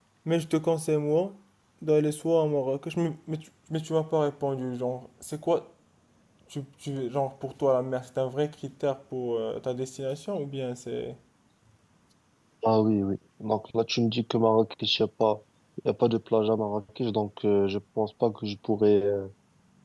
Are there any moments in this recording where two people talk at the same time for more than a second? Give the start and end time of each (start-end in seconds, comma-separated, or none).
none